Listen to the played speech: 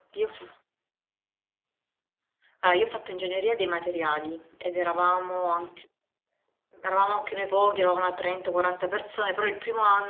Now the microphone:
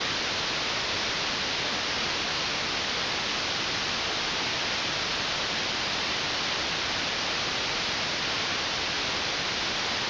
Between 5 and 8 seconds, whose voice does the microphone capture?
neither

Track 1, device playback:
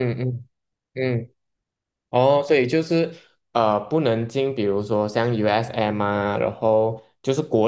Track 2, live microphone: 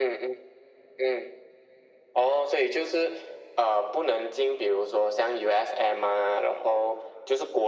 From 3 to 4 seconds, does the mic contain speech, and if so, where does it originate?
echo only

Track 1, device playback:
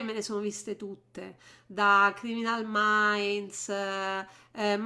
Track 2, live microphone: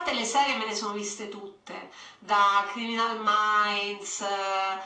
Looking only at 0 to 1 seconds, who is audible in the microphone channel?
echo only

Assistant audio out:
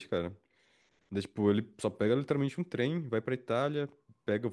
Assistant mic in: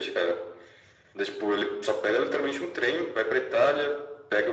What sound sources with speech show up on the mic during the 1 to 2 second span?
echo only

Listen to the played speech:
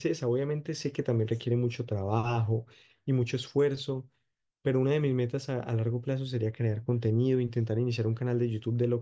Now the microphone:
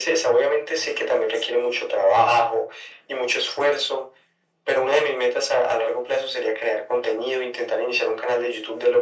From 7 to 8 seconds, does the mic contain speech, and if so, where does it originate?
echo only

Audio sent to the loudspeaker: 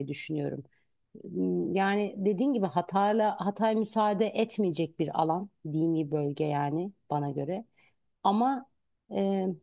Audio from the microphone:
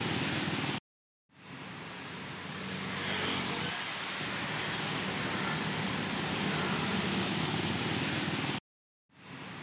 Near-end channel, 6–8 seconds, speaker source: neither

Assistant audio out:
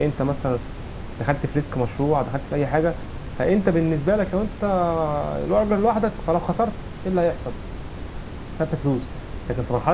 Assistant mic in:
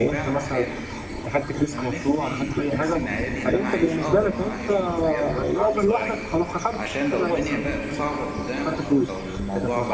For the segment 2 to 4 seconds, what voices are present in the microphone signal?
both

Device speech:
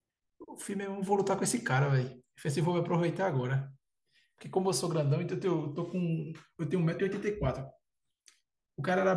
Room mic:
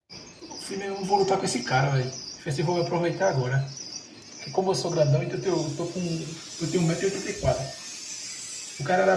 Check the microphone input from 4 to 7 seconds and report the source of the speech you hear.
echo only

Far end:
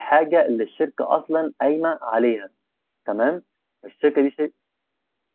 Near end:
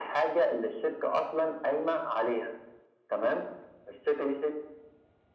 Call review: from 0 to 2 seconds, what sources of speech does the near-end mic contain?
echo only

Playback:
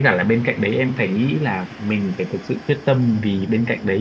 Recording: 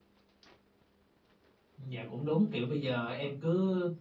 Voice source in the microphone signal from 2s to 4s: user only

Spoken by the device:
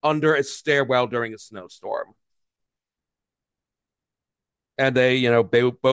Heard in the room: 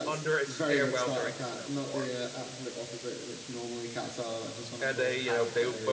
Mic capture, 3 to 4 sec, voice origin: user only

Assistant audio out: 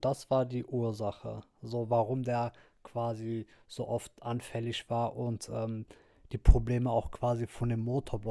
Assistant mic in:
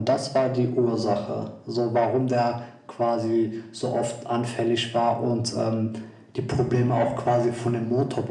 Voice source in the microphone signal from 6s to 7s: echo only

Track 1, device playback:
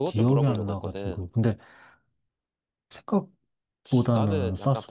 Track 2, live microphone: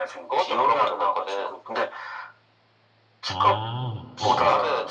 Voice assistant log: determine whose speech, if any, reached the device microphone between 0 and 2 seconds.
echo only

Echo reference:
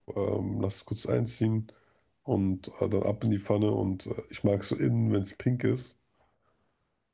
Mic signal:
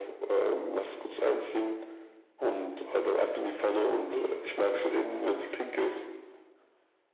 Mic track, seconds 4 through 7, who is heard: both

